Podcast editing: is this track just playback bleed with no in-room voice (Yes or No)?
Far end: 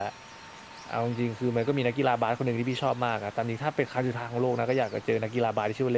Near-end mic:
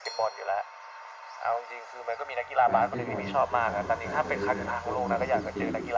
No